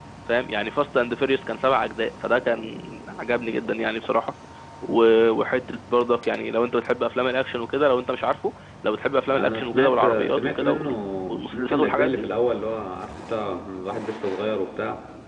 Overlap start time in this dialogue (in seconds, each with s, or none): 9.3 s